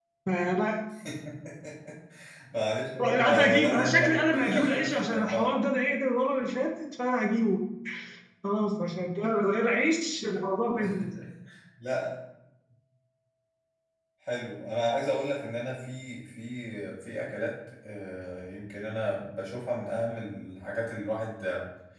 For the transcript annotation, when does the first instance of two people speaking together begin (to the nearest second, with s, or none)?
3 s